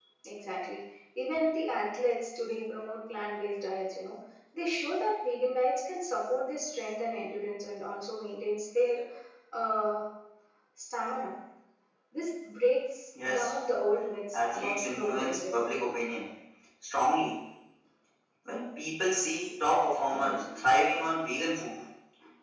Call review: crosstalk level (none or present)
present